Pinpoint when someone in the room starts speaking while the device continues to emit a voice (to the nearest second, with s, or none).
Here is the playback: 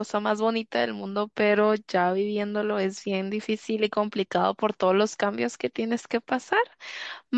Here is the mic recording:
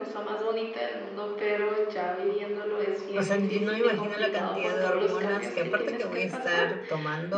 3 s